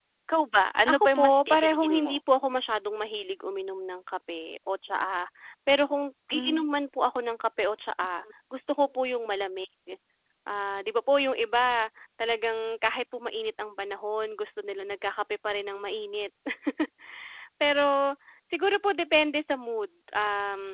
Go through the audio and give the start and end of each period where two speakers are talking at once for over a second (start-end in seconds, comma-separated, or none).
0.9-2.1